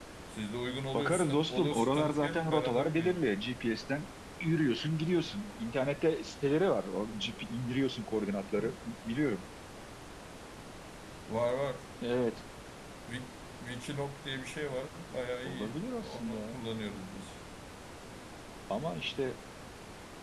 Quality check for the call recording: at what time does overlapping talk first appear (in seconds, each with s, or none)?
0.9 s